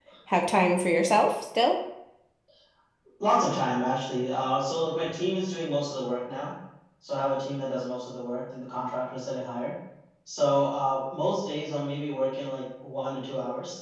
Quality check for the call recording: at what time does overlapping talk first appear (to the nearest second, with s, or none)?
none